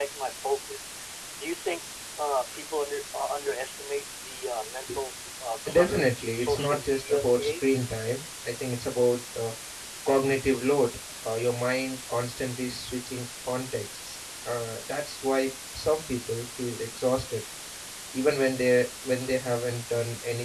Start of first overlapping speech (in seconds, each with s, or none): 5.7 s